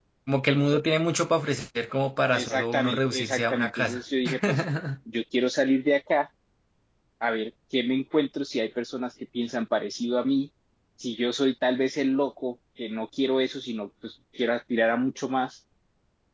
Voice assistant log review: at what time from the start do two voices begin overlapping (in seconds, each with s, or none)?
2.3 s